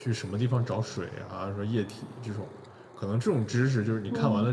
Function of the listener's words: listening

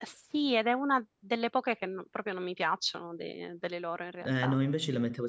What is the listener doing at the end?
taking over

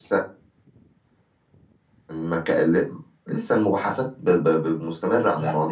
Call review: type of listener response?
taking over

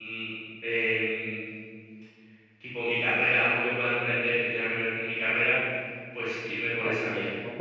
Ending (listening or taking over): taking over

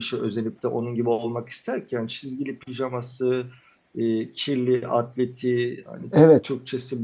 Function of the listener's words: listening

